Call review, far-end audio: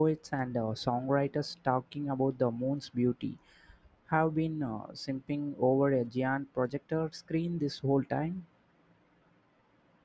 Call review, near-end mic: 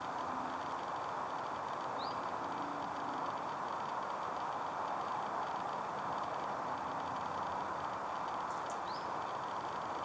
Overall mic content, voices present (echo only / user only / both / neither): neither